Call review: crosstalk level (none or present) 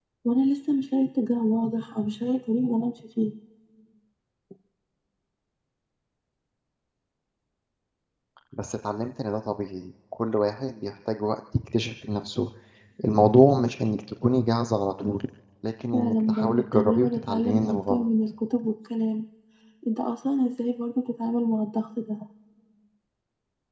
present